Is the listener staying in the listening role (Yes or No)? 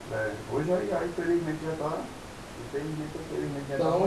No